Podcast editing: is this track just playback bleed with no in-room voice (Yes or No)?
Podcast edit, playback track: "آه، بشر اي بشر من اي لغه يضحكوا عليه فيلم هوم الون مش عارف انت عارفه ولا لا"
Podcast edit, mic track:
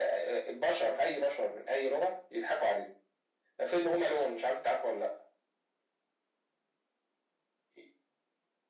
Yes